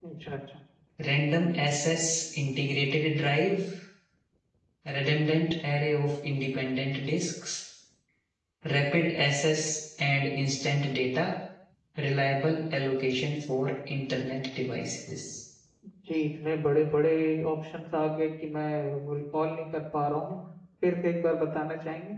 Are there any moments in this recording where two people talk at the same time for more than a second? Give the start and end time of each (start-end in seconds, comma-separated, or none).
none